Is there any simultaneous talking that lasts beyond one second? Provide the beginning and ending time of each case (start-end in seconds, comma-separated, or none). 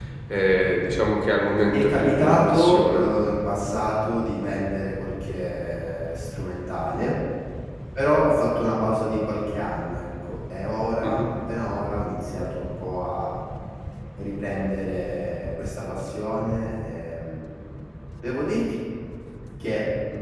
1.7-3.0